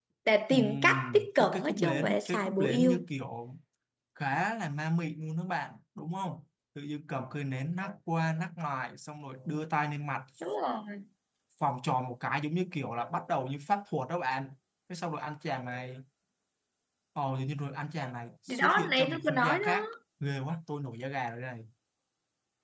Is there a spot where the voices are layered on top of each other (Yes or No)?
Yes